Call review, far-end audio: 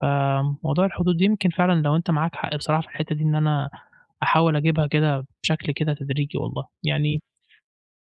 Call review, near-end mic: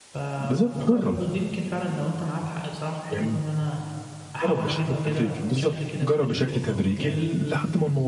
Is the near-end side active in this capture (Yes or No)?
Yes